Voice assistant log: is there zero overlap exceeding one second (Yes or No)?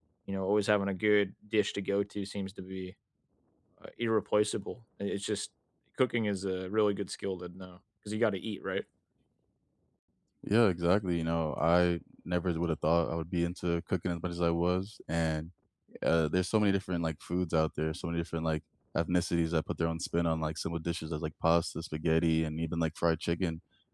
Yes